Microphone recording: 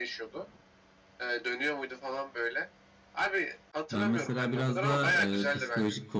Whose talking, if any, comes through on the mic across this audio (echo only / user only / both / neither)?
both